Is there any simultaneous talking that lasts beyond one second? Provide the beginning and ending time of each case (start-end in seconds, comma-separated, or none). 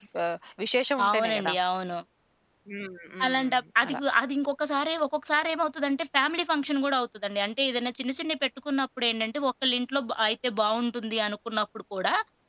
none